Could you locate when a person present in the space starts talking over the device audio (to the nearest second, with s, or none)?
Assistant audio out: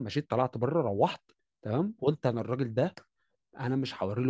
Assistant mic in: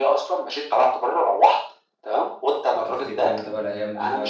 3 s